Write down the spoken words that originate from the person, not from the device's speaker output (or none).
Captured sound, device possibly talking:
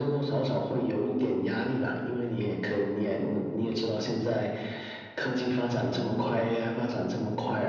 none